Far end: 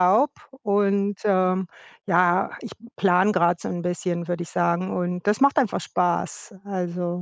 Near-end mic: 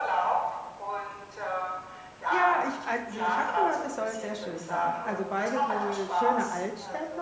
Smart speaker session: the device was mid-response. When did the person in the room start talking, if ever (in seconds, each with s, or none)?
2.3 s